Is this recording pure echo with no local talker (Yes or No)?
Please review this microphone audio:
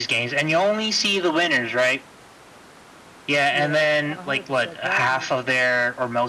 No